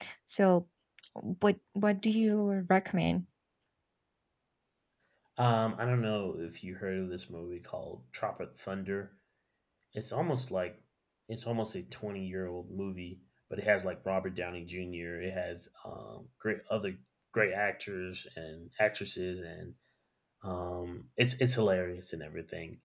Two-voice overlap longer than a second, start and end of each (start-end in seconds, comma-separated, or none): none